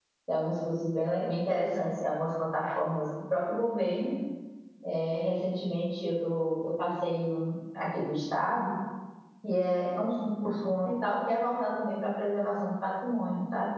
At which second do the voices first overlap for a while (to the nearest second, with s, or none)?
none